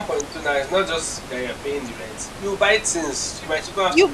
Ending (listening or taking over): taking over